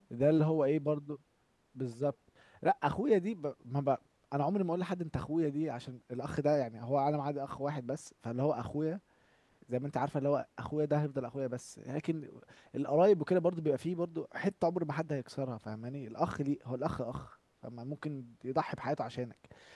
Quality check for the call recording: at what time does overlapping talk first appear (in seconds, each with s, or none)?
none